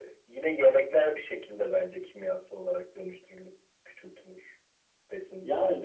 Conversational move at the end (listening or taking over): taking over